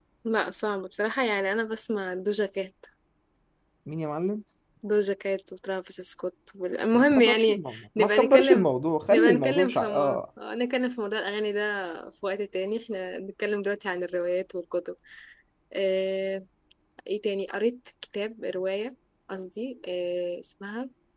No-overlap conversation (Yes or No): No